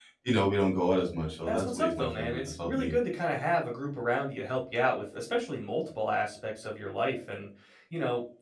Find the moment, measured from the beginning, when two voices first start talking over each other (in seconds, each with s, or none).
1.5 s